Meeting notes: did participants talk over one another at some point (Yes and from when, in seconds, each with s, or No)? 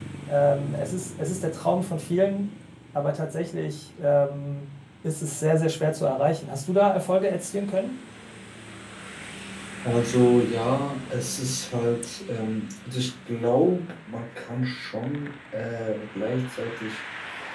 No